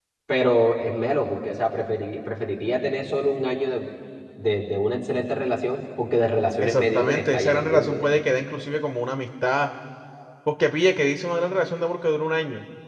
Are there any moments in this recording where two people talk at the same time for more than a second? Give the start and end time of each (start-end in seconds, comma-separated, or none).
6.6-8.0